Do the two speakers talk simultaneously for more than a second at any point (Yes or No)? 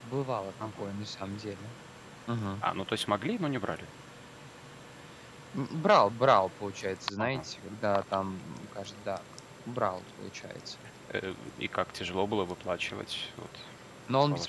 No